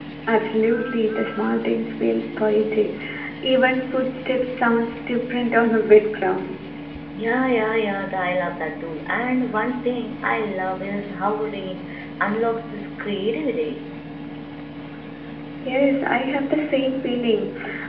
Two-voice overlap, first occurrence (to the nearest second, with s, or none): none